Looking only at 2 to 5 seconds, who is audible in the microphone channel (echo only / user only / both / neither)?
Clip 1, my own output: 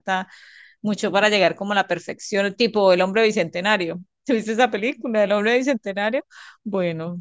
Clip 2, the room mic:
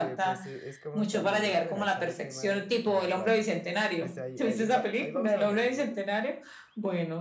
both